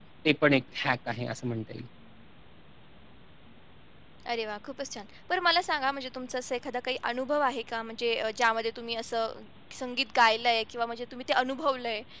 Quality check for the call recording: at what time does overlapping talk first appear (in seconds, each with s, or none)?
none